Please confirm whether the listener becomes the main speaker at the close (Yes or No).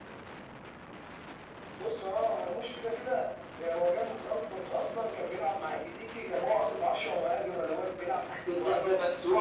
Yes